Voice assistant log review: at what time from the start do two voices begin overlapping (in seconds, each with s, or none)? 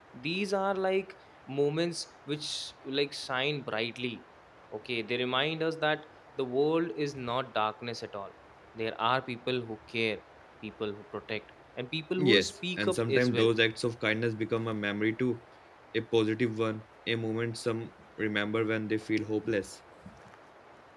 12.2 s